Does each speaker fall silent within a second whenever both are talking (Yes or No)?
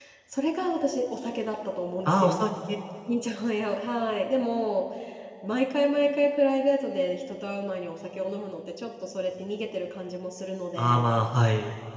Yes